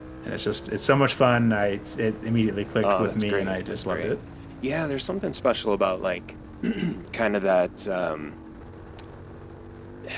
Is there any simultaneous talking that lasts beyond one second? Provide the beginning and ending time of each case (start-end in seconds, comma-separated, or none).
2.8-4.1